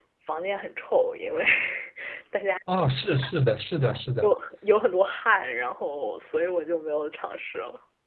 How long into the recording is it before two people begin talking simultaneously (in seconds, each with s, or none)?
none